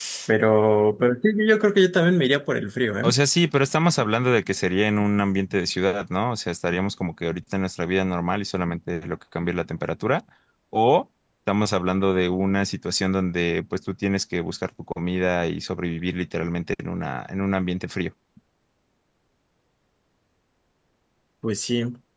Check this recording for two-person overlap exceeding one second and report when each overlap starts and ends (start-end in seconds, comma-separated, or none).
none